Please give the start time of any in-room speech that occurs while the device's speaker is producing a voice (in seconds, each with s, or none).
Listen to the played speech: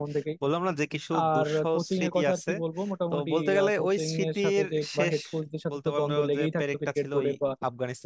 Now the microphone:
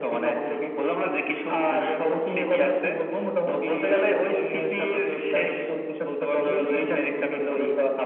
6.5 s